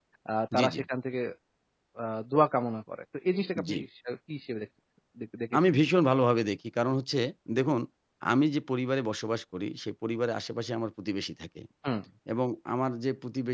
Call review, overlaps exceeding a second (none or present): none